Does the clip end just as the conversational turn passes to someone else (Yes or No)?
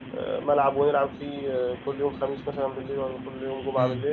Yes